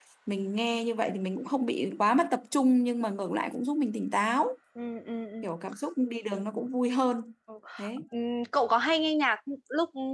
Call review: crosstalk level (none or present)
none